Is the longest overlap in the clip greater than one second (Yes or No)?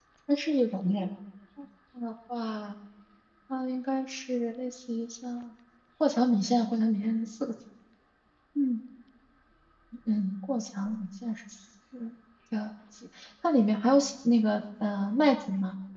No